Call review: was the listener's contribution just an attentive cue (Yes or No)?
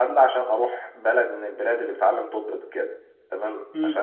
Yes